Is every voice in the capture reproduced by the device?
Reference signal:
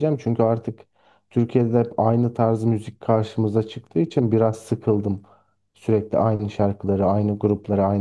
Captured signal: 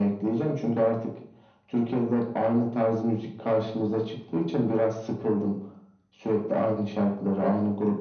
Yes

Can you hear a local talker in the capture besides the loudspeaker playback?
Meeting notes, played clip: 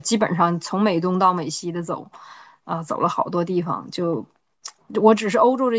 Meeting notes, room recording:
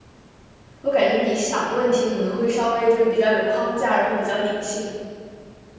Yes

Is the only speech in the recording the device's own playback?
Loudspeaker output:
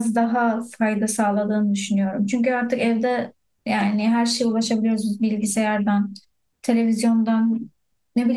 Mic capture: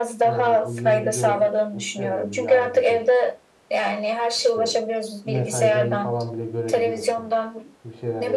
No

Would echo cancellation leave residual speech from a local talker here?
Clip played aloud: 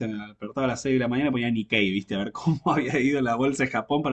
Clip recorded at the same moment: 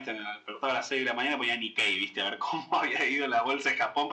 No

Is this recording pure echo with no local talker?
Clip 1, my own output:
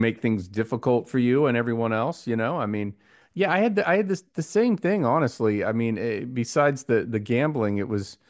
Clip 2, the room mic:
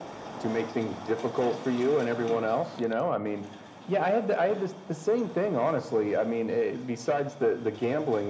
Yes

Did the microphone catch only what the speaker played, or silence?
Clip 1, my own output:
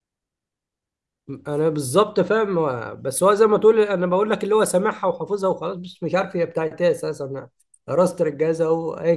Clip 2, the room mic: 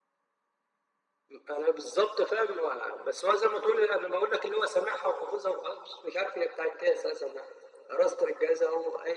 Yes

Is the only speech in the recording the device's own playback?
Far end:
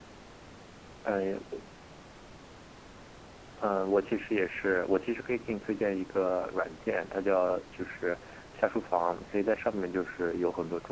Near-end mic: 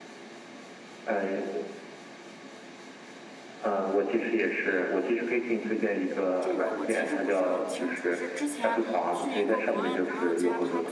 No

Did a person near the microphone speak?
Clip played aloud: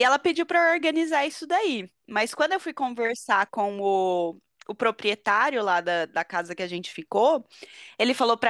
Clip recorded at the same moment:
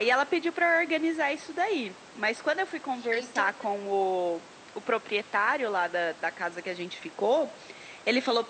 Yes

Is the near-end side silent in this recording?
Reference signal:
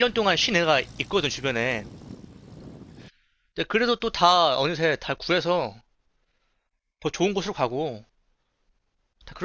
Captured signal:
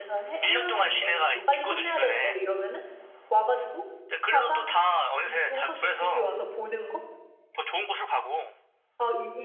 No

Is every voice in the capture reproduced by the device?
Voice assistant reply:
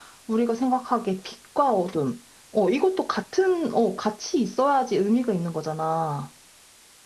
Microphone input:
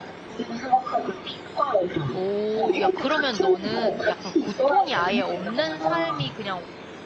No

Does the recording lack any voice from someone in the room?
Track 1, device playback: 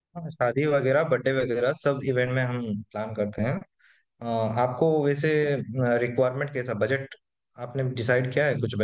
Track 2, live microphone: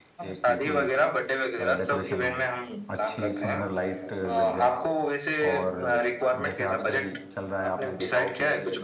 No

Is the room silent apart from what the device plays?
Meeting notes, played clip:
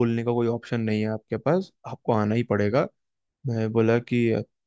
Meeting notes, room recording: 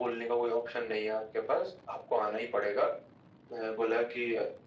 Yes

